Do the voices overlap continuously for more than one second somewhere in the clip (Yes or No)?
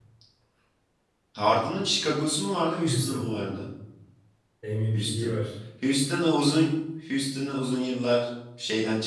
No